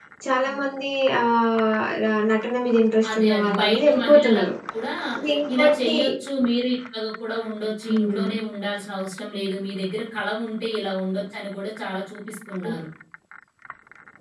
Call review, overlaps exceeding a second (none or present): present